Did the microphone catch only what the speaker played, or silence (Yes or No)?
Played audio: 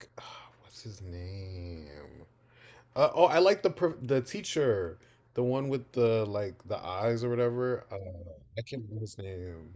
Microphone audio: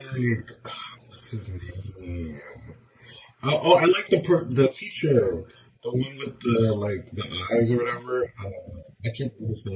Yes